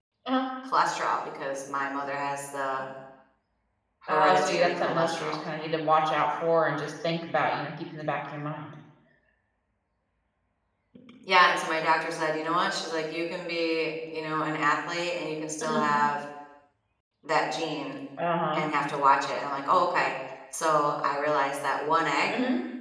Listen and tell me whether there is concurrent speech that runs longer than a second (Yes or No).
Yes